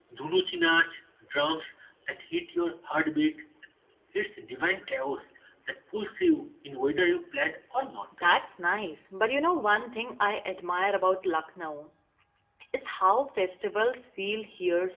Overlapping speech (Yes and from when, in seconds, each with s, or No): No